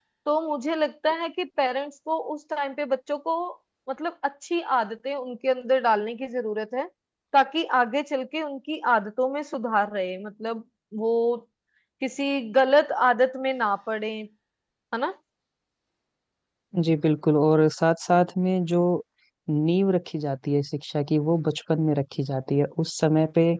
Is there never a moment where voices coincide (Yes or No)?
Yes